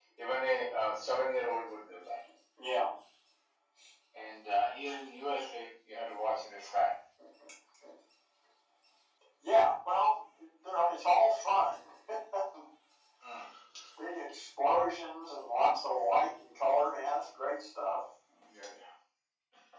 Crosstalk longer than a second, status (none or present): none